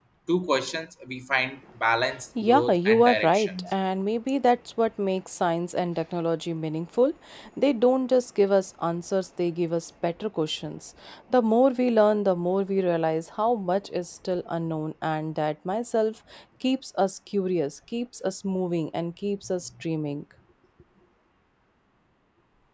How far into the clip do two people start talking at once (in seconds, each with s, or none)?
2.4 s